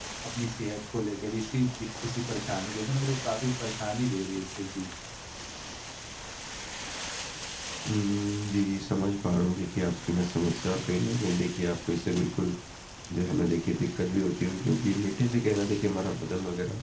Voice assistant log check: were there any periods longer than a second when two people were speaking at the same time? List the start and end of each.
none

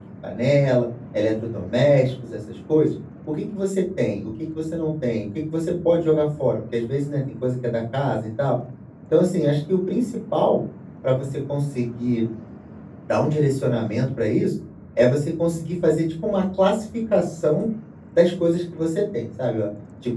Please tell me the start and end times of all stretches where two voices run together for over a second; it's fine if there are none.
none

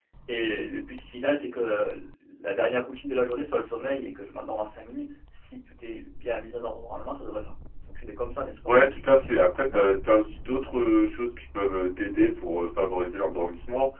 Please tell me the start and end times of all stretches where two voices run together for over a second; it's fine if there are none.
none

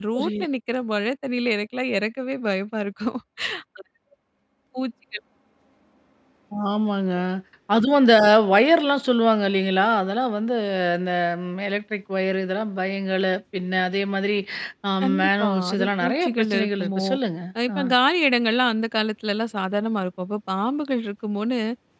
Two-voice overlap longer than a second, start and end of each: 15.0-17.0

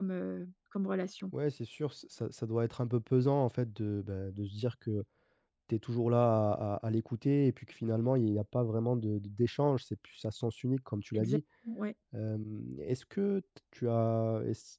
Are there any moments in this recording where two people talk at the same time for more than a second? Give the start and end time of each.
none

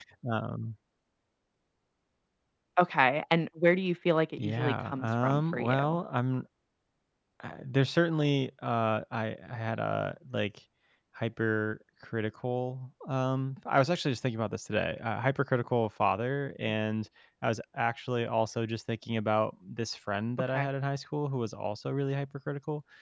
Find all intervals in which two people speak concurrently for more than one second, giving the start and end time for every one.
4.4-6.0

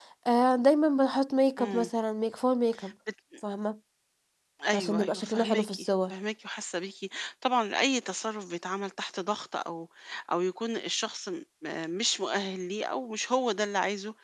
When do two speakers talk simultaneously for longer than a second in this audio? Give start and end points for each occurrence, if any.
4.7-6.1

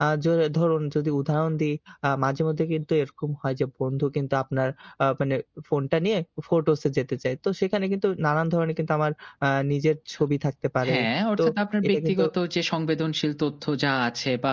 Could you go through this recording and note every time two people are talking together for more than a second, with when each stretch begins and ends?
none

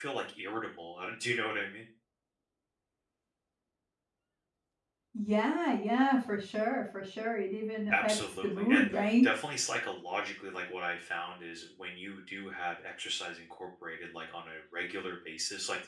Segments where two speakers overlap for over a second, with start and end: 7.9-9.2

